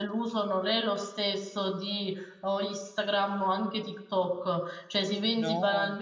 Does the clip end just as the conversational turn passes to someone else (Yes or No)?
No